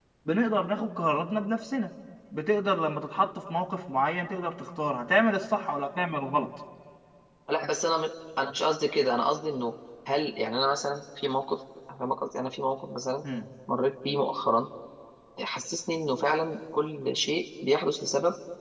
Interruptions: none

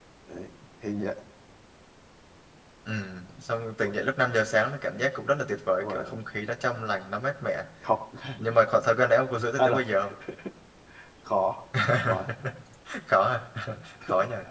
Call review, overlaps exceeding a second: none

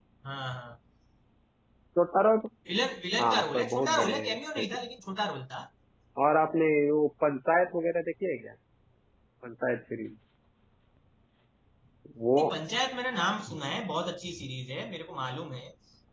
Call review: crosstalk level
present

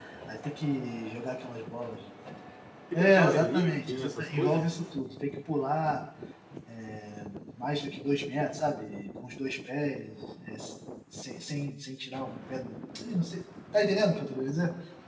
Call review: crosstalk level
present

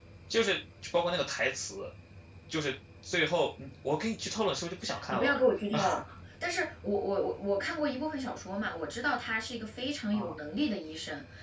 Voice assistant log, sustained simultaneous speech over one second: none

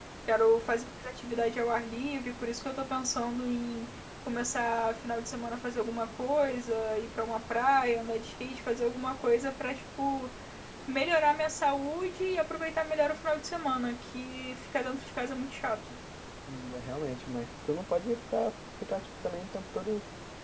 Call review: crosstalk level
none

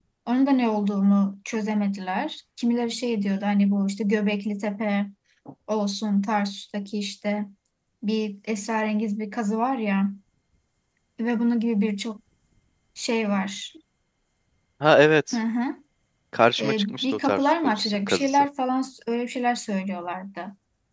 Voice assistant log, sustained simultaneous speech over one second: present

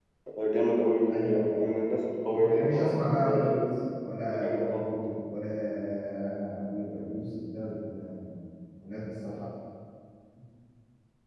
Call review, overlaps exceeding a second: present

